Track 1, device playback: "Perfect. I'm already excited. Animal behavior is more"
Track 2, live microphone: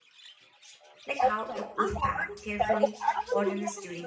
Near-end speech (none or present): present